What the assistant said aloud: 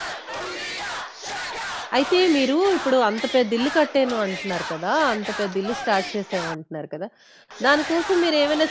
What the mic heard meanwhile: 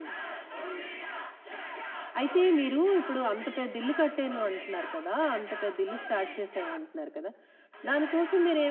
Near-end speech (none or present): none